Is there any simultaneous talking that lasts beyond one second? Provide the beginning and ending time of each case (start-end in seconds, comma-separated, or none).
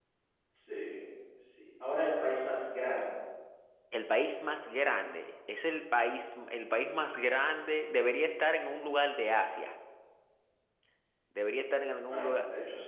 none